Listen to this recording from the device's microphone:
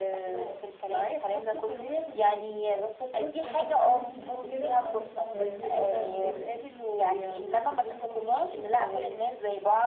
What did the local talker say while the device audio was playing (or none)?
يعني عندك صحاب كده عندك صحاب قريبين منك او كده